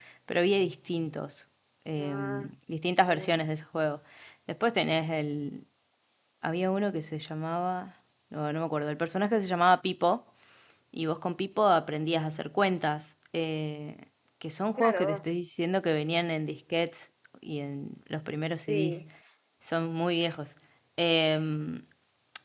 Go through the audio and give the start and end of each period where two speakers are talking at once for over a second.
none

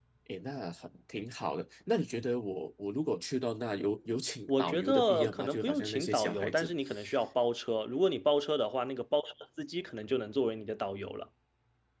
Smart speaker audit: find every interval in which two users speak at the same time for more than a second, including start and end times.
4.5-6.7

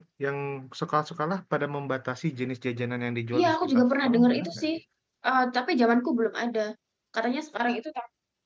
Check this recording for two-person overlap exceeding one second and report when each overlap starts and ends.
3.3-4.7

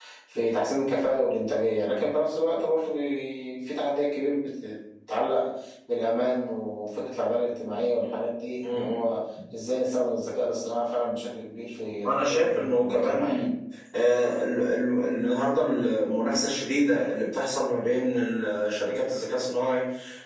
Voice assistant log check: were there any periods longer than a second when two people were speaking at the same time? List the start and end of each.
12.1-13.4

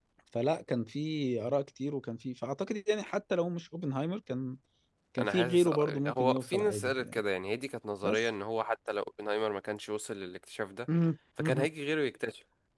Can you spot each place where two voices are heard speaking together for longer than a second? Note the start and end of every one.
5.2-7.2

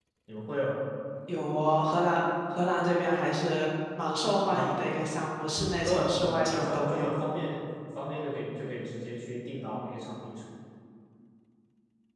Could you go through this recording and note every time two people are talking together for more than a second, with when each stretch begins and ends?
5.8-7.1

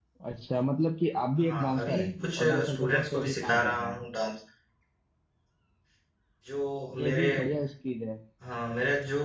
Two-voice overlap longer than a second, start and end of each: 1.5-4.0

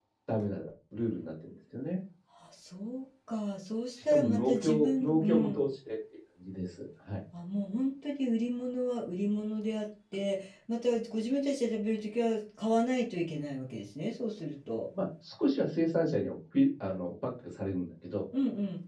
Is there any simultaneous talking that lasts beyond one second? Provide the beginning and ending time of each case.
4.0-5.6

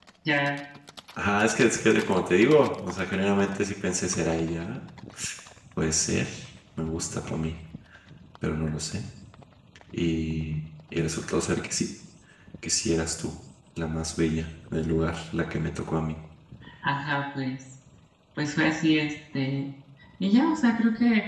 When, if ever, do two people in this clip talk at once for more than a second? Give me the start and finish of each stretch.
none

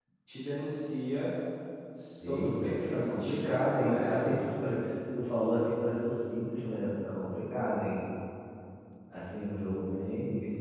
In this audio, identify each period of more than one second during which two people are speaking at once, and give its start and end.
2.2-4.3

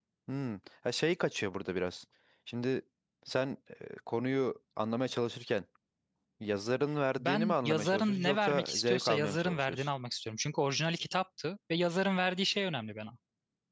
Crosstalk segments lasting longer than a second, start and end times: 7.2-9.9

